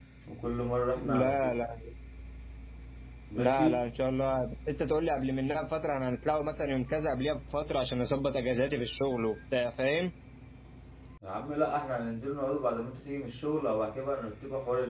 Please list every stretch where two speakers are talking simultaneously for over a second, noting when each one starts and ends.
none

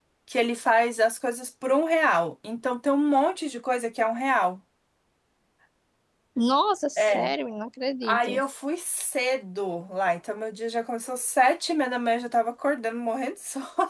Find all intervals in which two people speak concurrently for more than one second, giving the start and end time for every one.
none

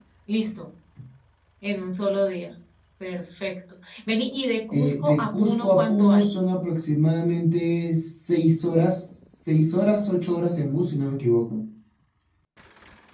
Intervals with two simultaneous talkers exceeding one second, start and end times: 4.7-6.3

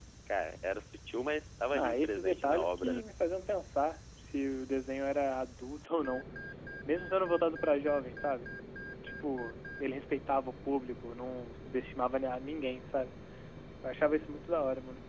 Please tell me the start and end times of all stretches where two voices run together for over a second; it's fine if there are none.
1.7-3.0

